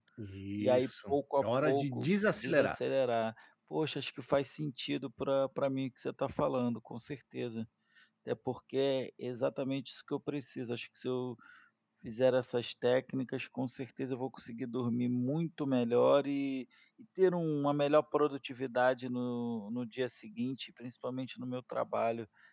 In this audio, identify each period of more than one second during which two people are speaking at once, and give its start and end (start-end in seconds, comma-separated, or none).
0.6-2.8